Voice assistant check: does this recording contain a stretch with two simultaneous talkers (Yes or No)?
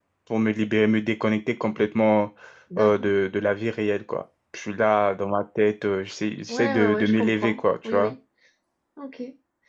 Yes